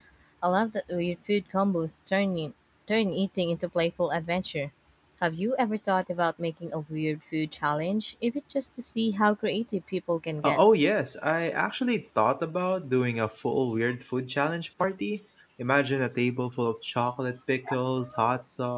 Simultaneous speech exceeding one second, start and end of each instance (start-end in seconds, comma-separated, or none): none